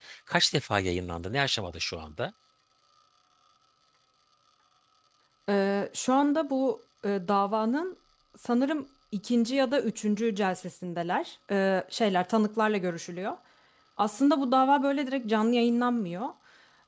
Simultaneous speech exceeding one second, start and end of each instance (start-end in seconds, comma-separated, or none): none